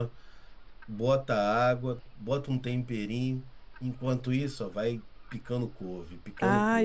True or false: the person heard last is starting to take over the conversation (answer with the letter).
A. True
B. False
A